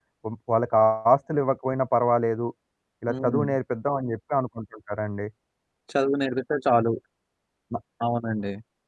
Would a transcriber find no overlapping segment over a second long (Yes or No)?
Yes